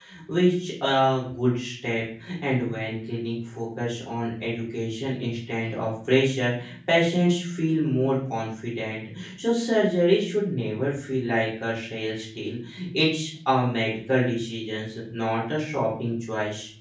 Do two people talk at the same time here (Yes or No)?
No